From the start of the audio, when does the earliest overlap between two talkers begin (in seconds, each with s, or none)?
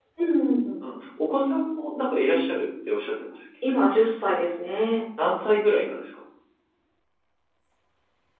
none